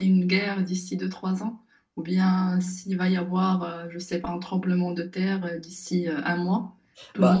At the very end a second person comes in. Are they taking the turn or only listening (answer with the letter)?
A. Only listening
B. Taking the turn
B